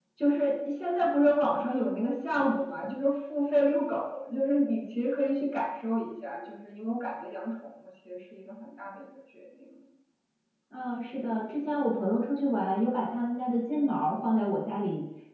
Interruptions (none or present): none